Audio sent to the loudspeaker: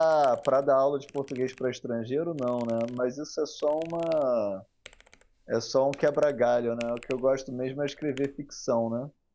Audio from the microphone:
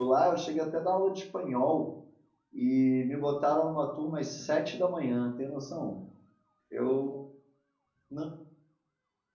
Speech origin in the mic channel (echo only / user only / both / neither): user only